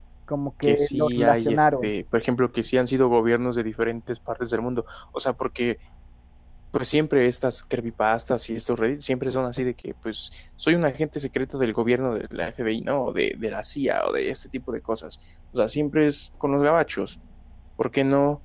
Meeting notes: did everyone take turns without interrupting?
No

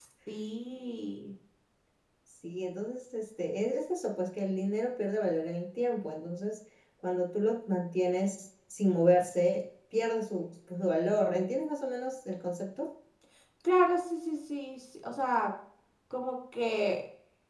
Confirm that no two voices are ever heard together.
Yes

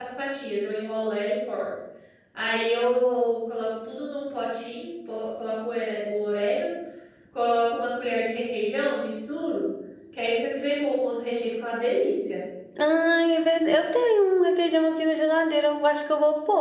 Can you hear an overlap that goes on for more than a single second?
No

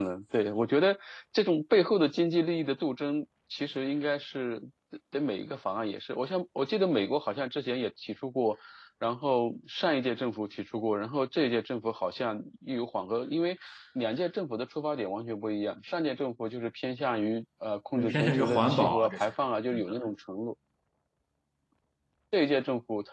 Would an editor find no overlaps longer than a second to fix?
No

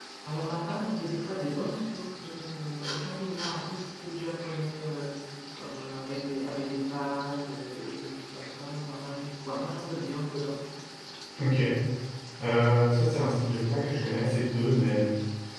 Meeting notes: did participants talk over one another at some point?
No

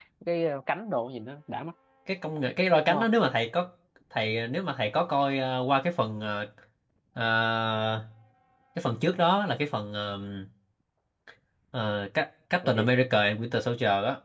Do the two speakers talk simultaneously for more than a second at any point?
No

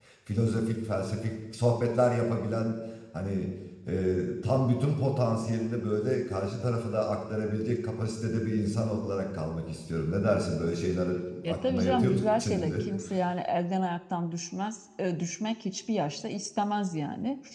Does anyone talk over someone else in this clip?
Yes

